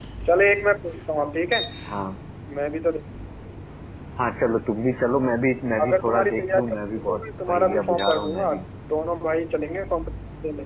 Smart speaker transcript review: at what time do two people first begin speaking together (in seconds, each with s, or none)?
5.8 s